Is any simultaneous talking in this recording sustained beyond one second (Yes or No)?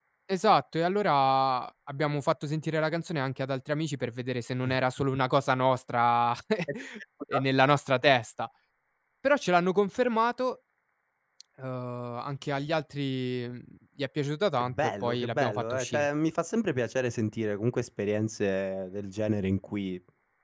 Yes